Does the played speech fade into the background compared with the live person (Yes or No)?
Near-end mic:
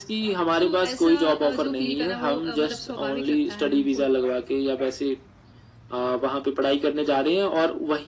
No